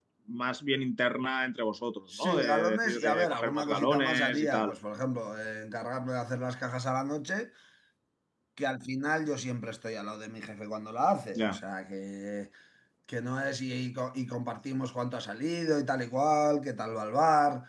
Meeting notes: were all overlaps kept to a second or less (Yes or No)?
No